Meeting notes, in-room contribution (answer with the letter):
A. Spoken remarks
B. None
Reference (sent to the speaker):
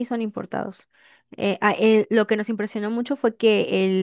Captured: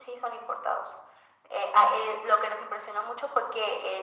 B